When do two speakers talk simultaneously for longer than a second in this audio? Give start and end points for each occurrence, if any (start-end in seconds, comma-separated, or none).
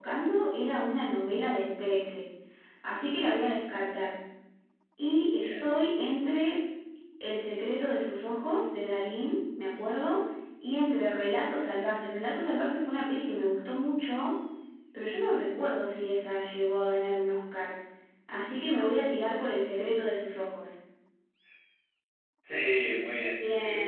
none